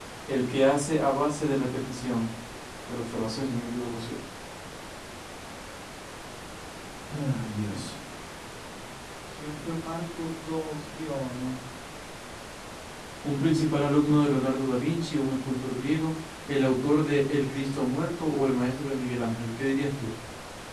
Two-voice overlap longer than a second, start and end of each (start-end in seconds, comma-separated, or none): none